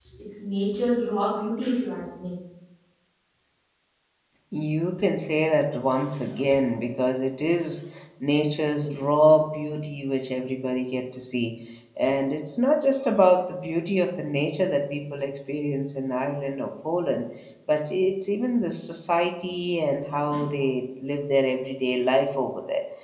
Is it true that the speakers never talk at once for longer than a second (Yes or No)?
Yes